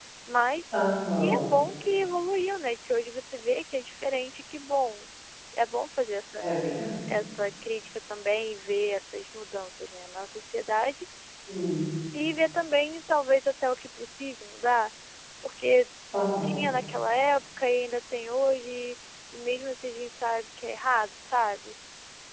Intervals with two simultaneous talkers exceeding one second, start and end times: none

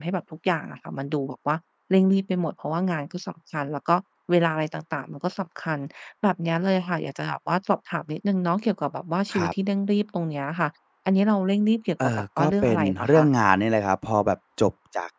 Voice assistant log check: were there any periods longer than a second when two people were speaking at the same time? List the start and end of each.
12.0-13.2

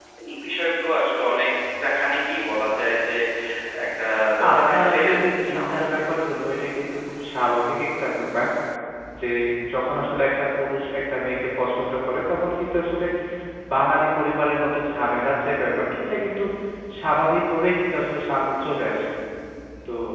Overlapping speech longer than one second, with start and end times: 4.4-6.0

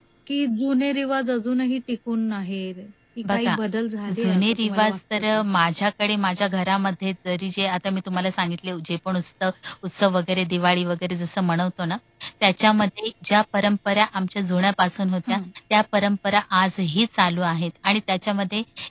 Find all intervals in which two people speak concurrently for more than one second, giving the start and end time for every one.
4.1-5.4

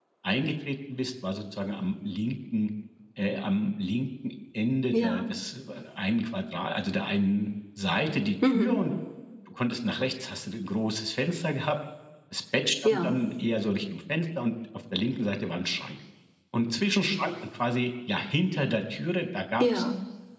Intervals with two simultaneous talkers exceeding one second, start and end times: none

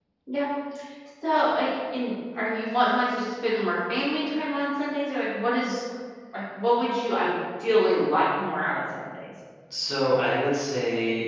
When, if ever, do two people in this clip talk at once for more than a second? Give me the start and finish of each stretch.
none

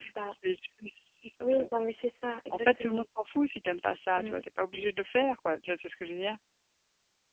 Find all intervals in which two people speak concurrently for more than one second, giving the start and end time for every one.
none

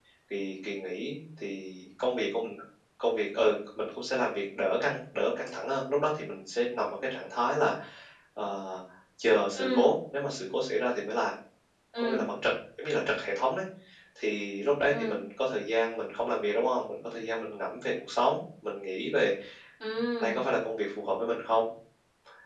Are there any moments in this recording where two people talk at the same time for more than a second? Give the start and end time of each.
none

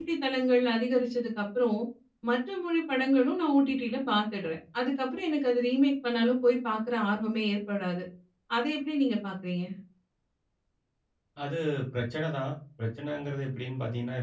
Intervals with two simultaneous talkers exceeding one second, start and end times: none

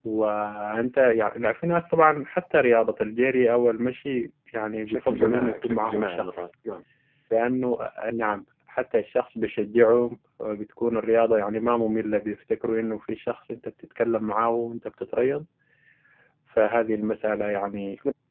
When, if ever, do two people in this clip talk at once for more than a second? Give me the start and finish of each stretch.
4.9-6.4

